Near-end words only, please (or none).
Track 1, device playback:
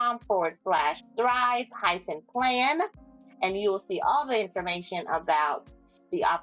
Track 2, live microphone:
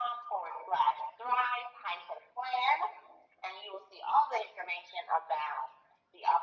none